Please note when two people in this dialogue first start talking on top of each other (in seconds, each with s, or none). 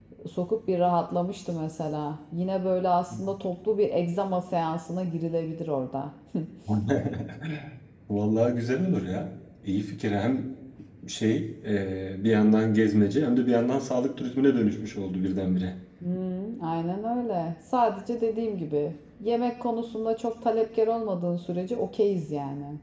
none